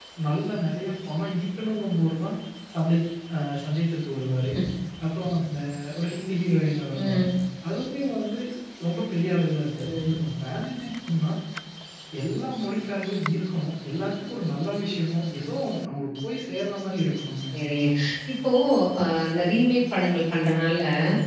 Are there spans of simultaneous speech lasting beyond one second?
No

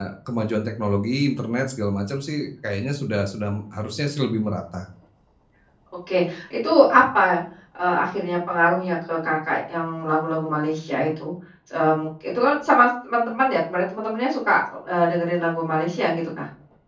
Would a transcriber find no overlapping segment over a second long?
Yes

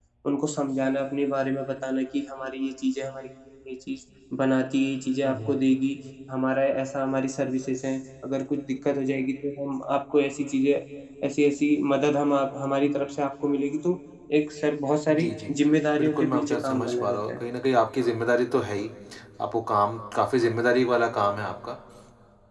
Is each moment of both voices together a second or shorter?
No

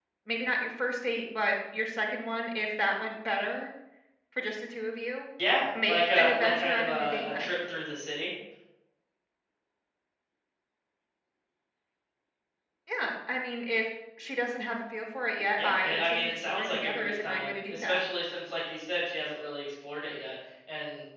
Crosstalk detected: Yes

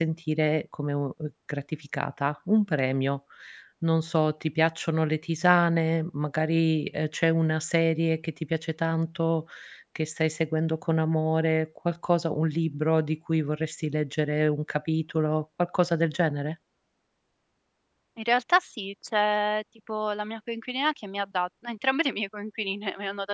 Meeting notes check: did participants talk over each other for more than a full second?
No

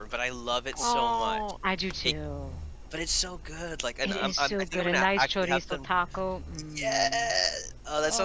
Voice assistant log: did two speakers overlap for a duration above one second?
Yes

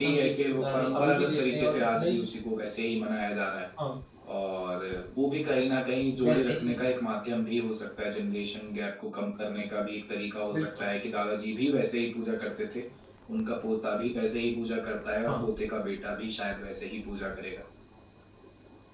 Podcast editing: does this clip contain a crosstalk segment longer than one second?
Yes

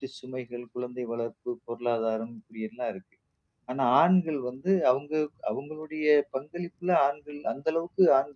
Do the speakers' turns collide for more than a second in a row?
No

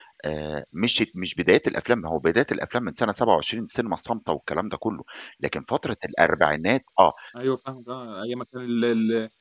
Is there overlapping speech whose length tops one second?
No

